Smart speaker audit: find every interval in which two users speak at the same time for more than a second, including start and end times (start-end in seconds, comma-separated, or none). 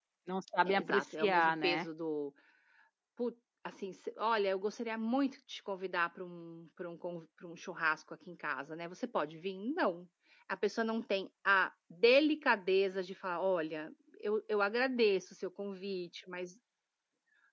0.7-1.9